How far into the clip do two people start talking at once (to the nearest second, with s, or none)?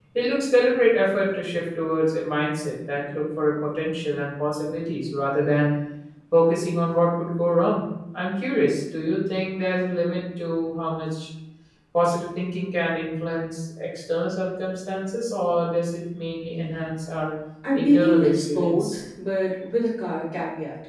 18 s